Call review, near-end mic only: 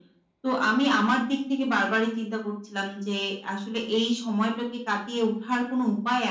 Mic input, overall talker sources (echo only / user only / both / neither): echo only